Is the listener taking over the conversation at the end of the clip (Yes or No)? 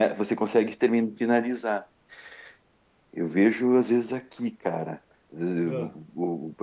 No